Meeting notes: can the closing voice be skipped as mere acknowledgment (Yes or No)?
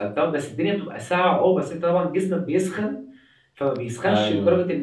Yes